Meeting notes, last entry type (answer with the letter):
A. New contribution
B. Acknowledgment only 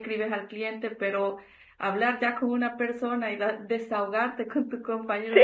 B